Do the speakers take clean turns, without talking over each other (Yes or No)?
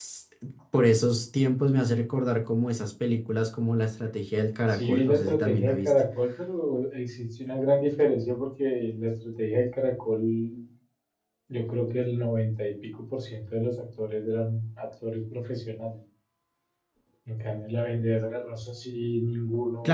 No